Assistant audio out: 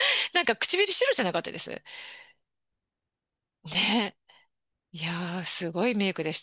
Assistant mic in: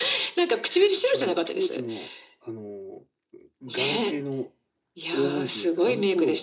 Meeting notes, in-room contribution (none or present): present